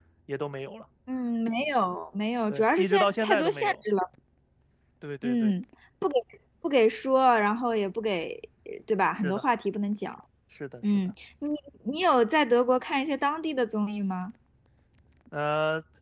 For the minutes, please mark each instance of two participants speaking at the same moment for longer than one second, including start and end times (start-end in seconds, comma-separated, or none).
2.5-3.8